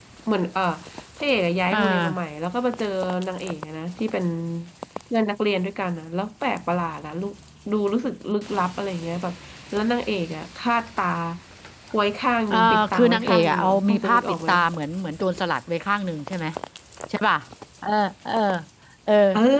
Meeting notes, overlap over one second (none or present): present